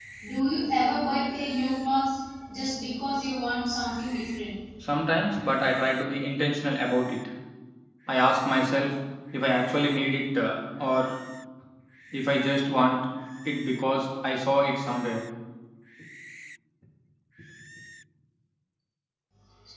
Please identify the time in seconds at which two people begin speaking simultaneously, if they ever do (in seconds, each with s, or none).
none